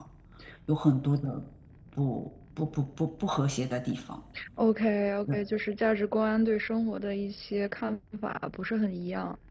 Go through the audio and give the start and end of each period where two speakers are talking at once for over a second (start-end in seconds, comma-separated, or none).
none